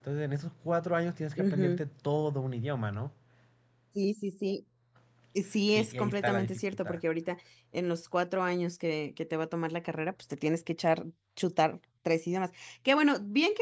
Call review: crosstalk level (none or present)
present